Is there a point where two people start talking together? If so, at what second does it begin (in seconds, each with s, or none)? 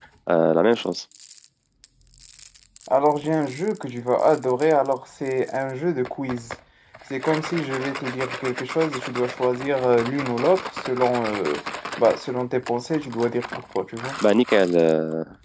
none